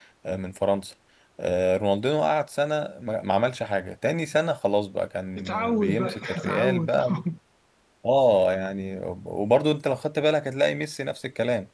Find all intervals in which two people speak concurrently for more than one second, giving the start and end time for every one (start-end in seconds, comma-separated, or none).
5.4-7.1